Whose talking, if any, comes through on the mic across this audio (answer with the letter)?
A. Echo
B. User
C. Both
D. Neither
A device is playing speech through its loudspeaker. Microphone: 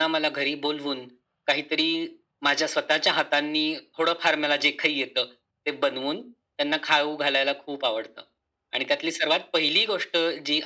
A